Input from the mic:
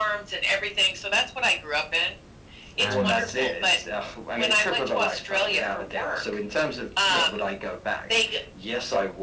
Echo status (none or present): present